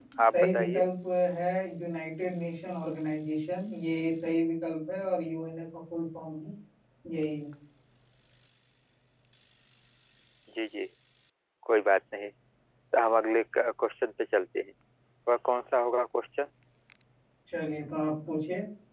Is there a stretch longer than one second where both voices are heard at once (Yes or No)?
No